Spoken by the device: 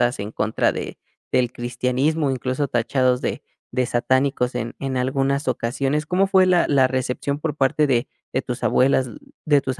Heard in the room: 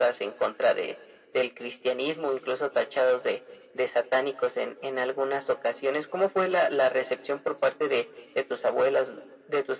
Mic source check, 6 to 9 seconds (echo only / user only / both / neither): echo only